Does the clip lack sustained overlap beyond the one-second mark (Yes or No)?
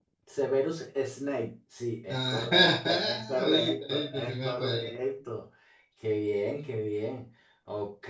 No